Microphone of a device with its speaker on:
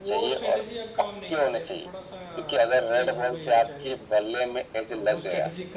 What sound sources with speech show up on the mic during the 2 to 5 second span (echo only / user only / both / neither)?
both